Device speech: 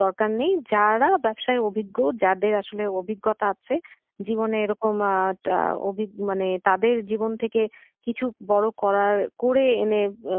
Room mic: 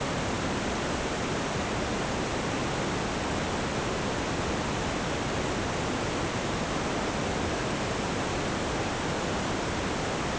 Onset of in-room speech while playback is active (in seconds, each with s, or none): none